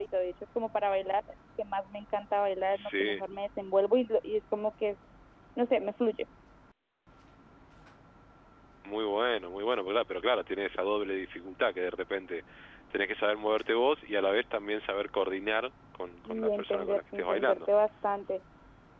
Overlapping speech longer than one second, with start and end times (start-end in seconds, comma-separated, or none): 16.3-17.6